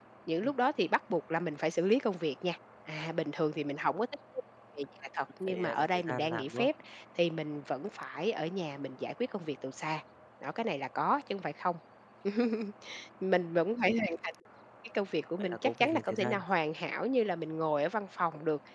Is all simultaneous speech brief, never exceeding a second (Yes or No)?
No